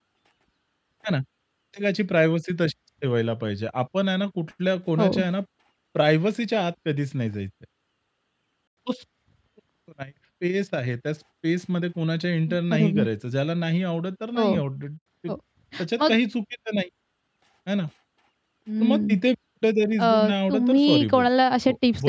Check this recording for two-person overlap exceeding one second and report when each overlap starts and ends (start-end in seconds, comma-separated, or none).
20.0-21.3